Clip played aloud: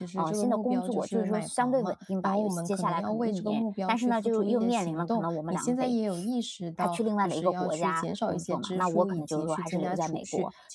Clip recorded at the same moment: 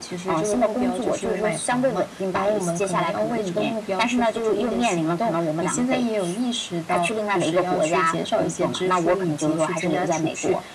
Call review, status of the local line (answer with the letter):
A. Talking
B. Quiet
B